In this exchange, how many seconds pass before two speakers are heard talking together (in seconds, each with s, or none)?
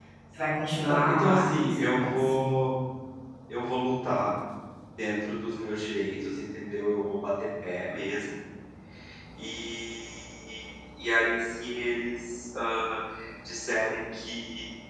0.8 s